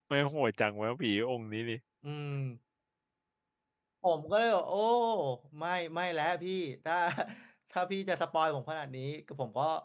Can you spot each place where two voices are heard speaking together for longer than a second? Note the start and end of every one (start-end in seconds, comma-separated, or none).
none